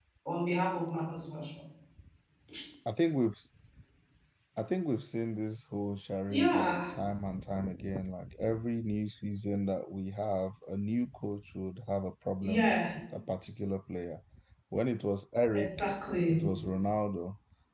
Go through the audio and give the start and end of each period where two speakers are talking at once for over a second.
none

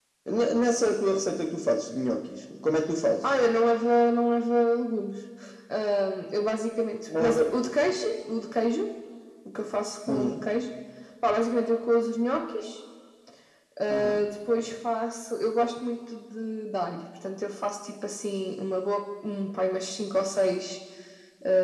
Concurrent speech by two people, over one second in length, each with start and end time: none

